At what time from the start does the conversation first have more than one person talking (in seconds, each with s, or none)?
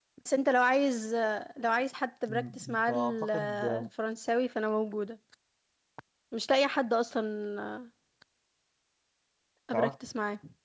2.3 s